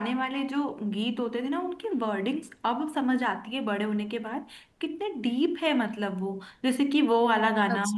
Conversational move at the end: listening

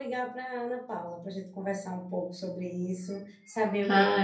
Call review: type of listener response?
listening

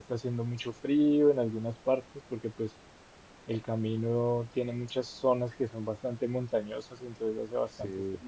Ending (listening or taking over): listening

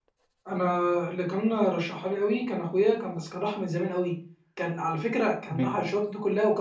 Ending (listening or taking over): listening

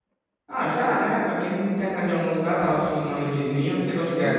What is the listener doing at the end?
taking over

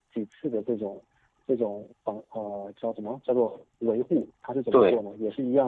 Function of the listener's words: listening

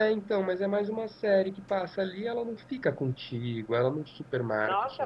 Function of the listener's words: taking over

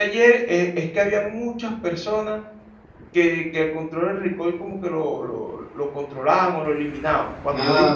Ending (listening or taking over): taking over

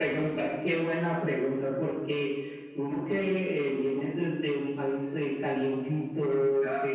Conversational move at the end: listening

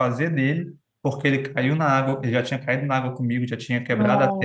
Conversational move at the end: listening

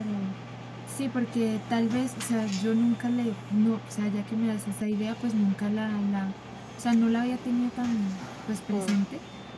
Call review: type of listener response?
listening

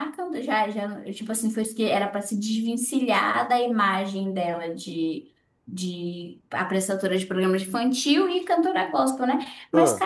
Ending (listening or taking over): listening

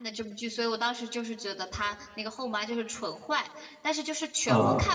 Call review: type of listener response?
listening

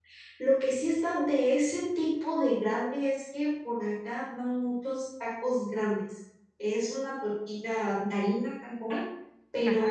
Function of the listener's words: listening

